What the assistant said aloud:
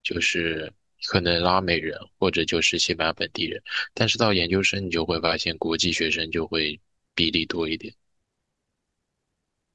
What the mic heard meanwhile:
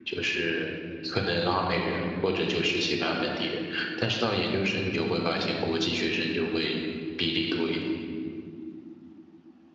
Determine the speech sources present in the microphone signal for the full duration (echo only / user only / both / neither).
echo only